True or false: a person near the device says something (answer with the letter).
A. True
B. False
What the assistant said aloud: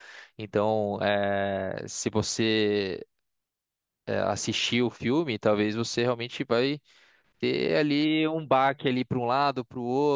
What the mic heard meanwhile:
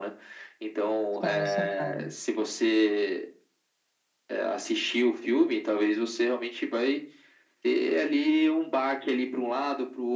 A